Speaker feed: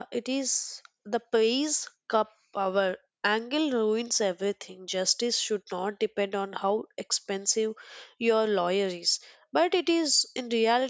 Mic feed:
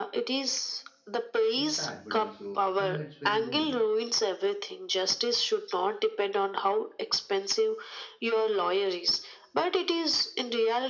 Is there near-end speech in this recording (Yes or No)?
Yes